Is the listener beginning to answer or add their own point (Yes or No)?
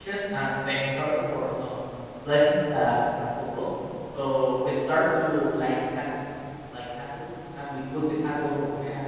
No